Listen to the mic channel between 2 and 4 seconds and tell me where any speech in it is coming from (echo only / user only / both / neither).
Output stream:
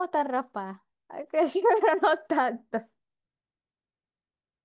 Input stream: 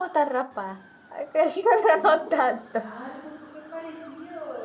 both